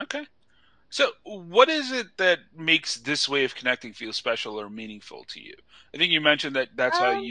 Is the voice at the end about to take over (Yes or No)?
No